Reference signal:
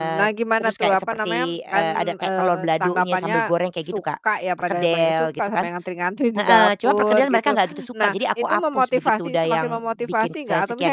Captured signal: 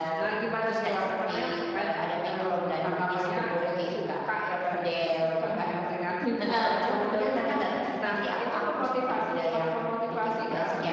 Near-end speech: none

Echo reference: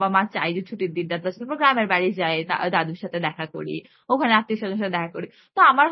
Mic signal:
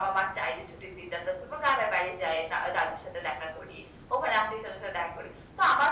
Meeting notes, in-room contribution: none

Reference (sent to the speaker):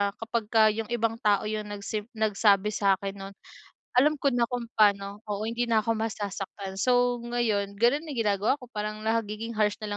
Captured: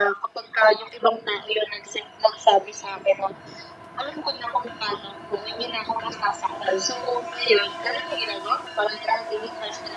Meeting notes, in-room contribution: none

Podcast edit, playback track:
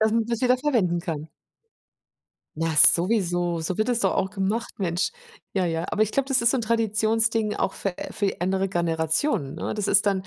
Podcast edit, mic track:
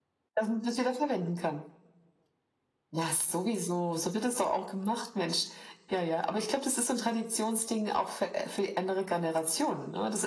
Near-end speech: none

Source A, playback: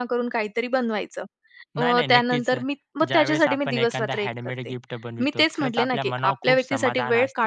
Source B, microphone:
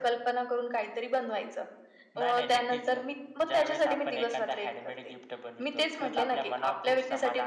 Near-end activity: none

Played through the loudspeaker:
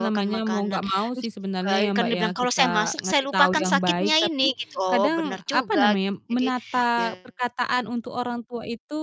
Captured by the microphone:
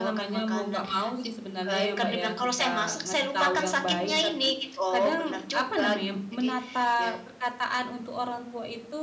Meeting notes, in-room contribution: none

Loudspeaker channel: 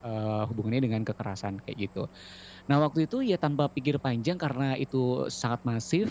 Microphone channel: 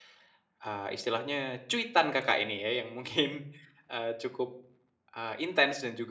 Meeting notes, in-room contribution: present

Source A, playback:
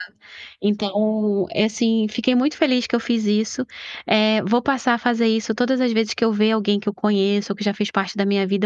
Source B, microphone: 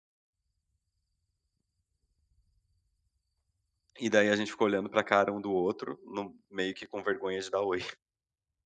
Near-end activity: present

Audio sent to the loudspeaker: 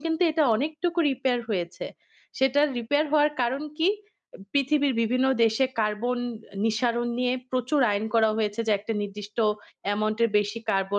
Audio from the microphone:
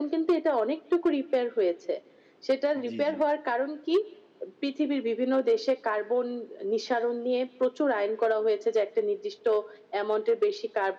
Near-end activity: present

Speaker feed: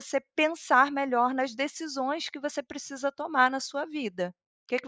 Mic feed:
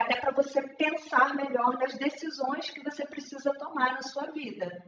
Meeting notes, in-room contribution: none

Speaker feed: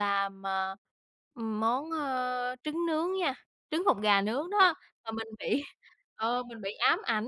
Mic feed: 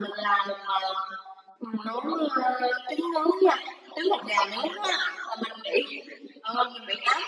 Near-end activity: none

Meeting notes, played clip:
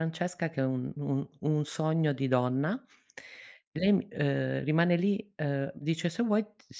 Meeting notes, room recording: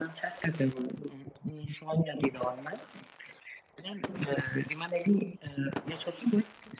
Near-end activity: none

